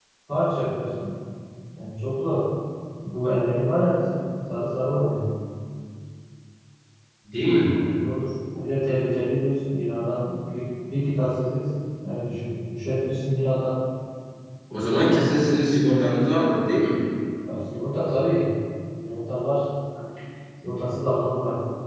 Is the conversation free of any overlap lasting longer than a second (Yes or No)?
Yes